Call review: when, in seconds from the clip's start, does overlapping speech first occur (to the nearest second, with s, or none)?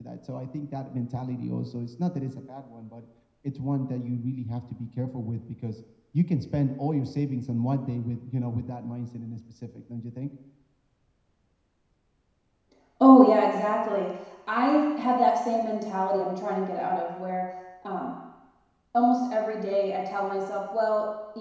none